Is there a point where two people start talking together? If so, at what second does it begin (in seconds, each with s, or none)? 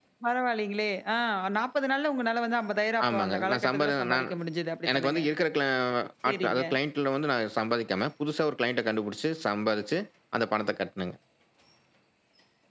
3.0 s